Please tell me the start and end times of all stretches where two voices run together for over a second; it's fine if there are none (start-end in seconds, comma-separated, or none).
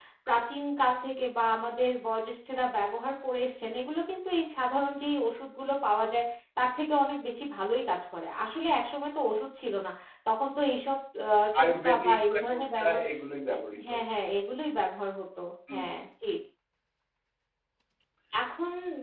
11.6-13.0